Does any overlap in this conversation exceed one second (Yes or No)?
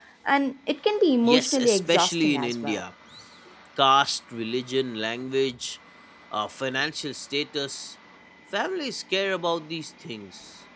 Yes